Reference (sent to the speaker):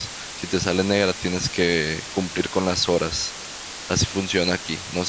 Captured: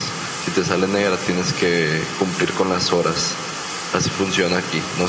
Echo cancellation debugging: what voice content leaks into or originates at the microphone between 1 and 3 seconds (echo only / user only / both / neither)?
echo only